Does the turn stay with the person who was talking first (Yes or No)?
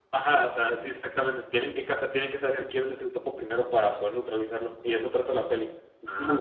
No